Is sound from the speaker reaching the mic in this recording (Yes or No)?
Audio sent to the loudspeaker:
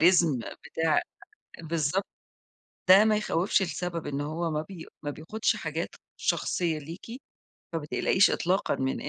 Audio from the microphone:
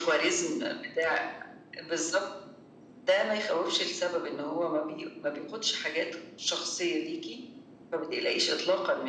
Yes